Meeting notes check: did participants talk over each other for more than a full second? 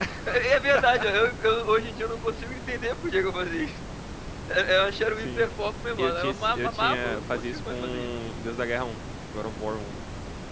Yes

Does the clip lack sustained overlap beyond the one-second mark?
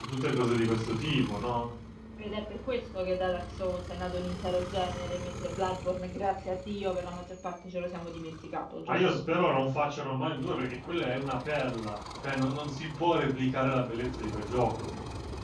Yes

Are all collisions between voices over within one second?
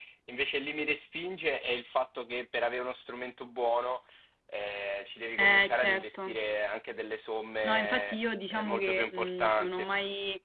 No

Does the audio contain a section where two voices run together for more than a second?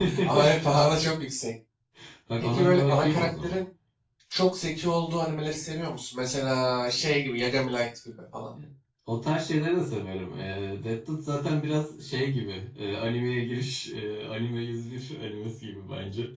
Yes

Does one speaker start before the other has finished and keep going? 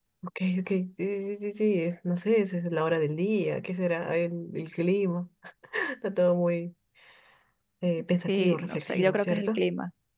Yes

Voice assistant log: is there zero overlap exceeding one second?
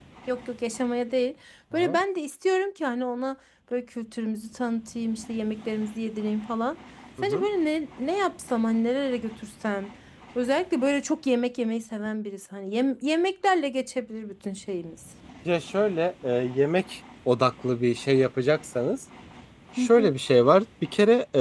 Yes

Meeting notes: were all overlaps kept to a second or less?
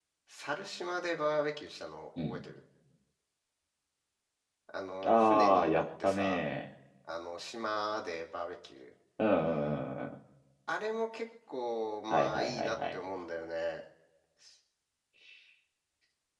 No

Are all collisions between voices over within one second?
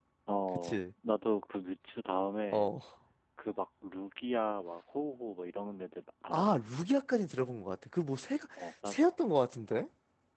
Yes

